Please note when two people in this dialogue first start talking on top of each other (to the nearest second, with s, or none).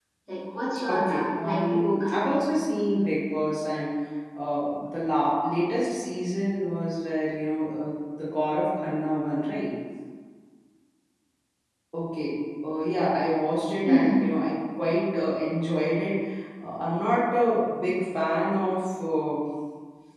1 s